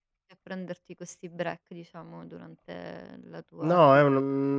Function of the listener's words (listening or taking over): taking over